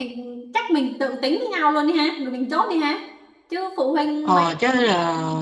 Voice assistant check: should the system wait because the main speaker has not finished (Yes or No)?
No